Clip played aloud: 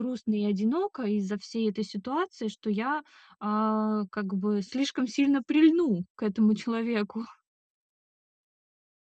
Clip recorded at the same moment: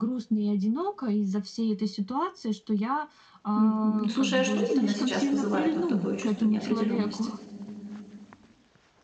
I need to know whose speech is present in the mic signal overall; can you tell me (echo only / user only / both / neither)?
both